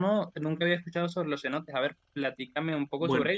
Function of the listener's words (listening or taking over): listening